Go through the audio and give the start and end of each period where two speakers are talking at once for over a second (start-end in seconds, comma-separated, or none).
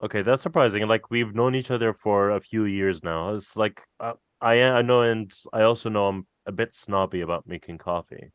none